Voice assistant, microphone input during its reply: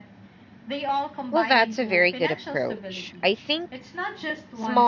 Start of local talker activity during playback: 1.3 s

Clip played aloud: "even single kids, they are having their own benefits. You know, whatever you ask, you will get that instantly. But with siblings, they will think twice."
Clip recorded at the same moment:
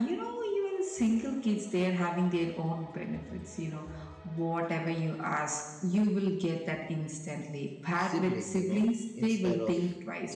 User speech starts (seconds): 8.1 s

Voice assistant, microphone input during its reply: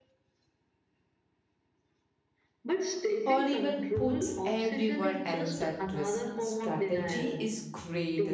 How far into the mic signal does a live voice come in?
3.2 s

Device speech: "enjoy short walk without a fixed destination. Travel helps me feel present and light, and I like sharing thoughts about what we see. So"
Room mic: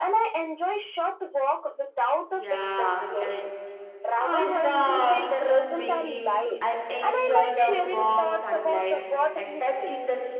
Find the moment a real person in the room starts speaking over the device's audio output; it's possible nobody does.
2.3 s

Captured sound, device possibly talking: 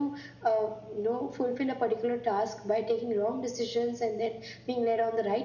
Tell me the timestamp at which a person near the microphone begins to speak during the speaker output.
none

